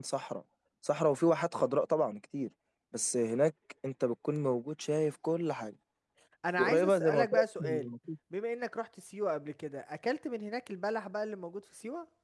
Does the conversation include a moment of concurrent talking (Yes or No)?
Yes